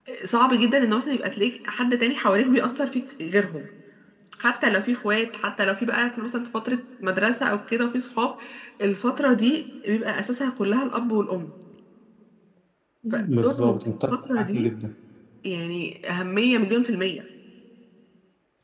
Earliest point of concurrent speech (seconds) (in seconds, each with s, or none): 13.4 s